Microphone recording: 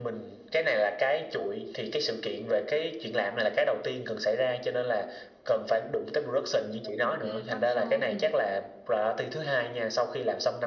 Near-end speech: present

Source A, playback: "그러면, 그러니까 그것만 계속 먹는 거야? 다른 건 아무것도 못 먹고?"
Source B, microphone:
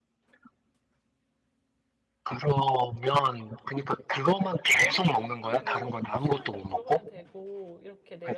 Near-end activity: present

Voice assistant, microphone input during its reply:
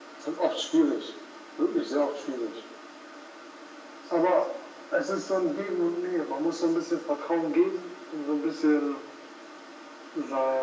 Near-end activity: none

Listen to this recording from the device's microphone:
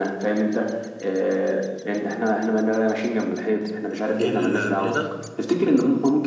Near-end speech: present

